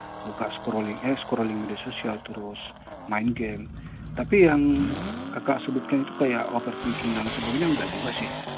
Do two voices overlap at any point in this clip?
No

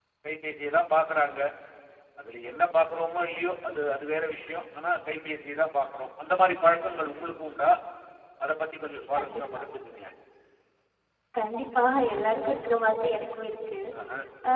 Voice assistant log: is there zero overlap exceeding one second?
Yes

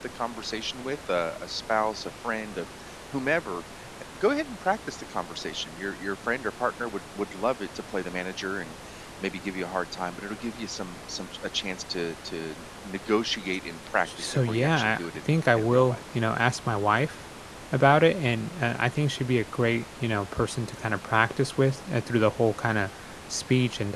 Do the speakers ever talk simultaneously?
Yes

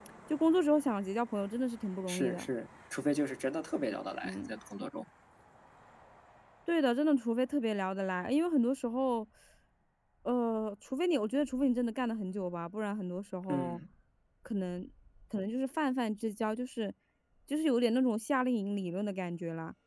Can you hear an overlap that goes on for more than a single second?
No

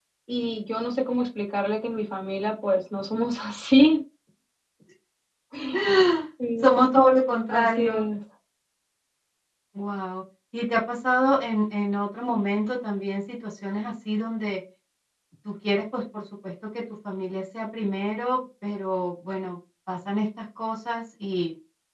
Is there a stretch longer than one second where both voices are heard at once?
No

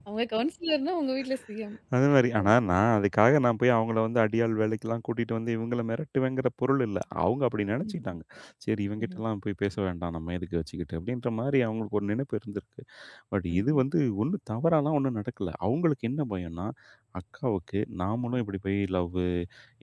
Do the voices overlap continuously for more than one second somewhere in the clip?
No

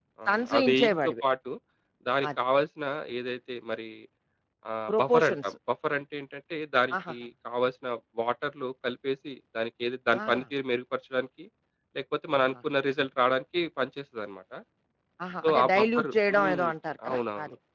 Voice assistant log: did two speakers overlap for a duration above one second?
Yes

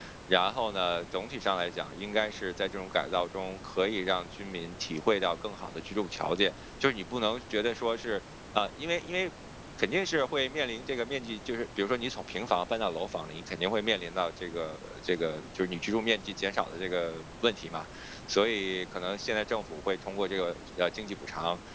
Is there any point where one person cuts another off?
No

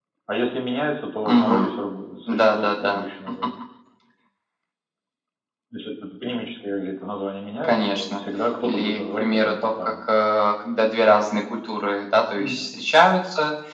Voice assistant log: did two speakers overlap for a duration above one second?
Yes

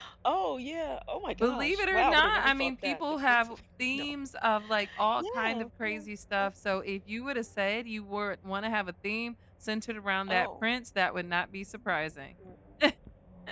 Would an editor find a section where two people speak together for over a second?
Yes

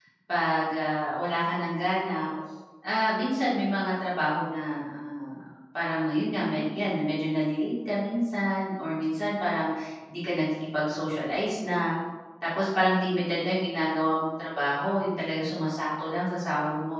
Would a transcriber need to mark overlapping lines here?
No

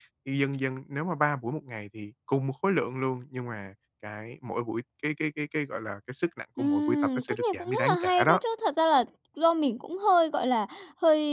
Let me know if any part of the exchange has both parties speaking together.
Yes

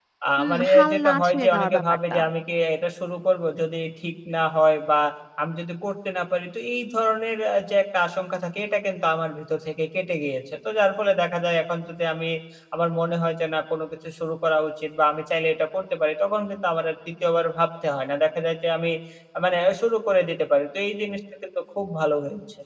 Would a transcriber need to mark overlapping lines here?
Yes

